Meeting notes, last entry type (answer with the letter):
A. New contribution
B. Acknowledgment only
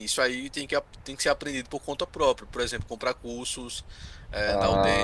A